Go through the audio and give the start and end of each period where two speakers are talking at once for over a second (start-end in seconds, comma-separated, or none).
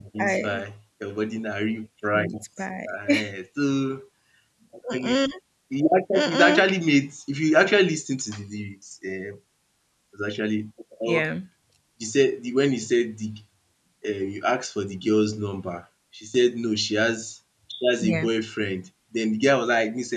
none